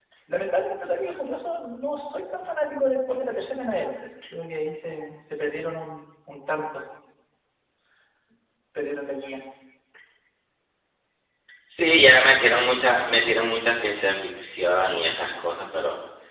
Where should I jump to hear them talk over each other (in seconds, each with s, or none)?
none